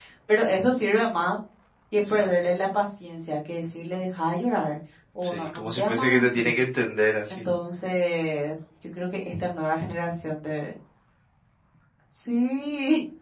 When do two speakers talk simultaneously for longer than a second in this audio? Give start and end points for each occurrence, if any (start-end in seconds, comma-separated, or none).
5.2-6.6